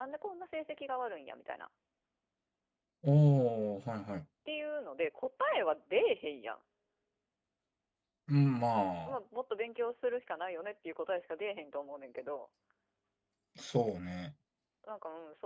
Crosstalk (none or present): none